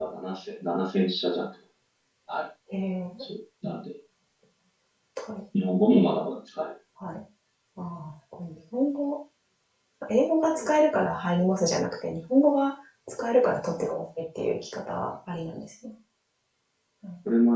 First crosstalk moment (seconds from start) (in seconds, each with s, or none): none